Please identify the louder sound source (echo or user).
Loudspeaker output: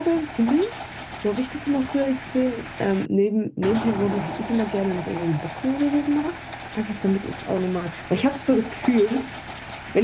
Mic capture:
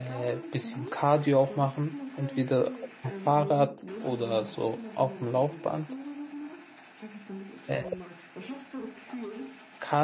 user